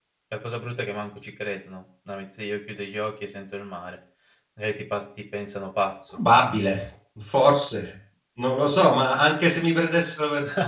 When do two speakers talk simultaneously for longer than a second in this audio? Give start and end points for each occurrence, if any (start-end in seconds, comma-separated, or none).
none